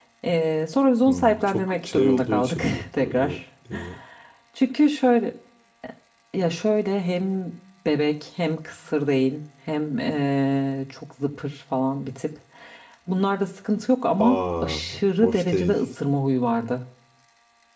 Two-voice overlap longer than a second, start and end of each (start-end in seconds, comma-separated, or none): 1.1-3.4, 14.2-15.8